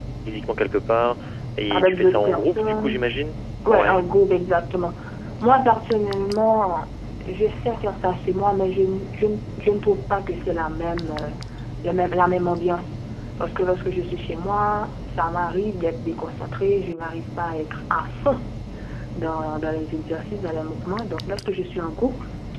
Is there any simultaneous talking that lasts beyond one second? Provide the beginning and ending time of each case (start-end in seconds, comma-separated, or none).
1.7-3.0